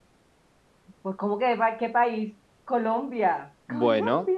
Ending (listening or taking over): taking over